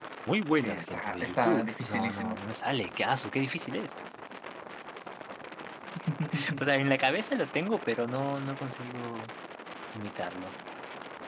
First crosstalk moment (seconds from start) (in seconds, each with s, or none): 0.6 s